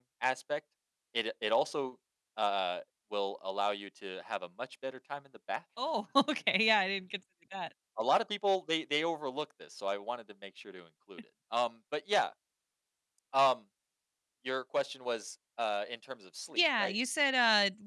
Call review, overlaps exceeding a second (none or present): none